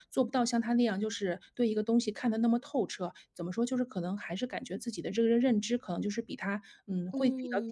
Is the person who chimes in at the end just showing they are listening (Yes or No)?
No